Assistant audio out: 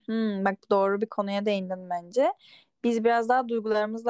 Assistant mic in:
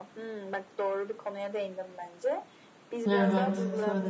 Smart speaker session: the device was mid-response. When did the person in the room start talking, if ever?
3.1 s

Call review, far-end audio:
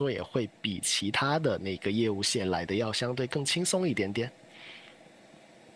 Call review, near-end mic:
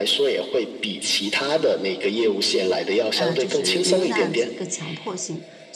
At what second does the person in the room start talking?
3.1 s

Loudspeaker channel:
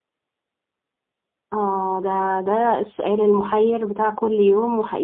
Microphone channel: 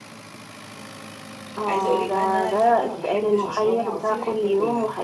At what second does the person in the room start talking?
1.7 s

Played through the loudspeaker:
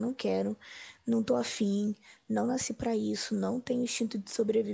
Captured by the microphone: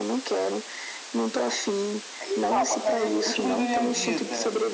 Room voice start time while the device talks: 2.2 s

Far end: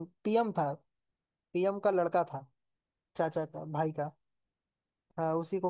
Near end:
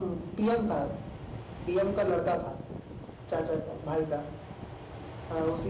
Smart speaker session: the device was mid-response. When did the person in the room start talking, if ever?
none

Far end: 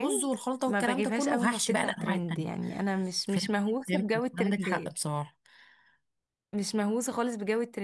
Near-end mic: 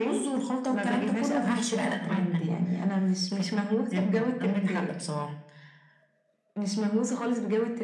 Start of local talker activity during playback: none

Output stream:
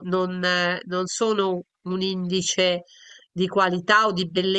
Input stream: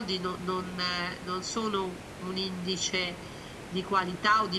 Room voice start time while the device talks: none

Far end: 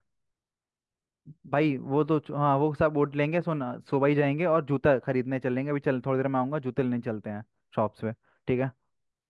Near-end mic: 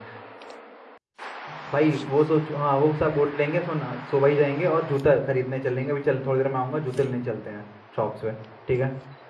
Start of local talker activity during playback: none

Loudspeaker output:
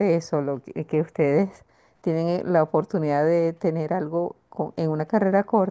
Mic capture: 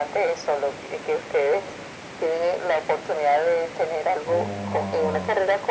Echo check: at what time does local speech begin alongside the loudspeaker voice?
4.2 s

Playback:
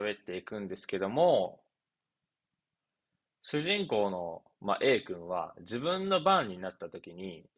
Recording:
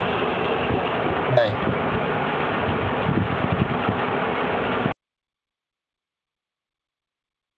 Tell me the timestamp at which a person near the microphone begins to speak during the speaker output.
1.3 s

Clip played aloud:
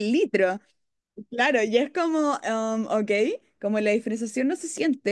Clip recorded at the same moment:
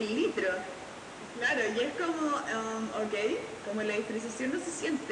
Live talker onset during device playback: none

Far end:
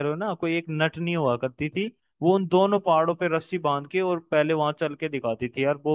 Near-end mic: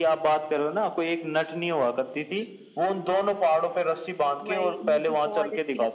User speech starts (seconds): 4.4 s

